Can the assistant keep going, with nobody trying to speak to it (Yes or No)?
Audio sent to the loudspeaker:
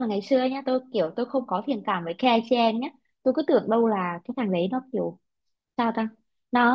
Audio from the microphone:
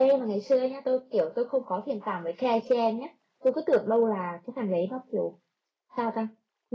Yes